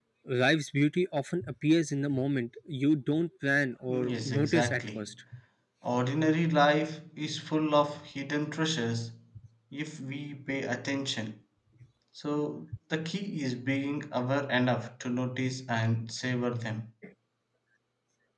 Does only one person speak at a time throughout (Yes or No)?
No